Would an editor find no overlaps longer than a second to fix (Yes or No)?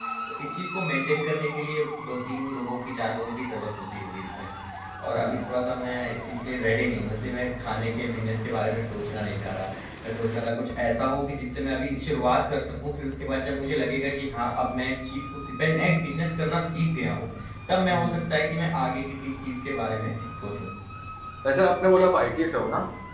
Yes